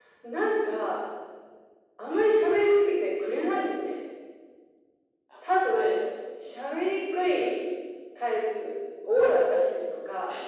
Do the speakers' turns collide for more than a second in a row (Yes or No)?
No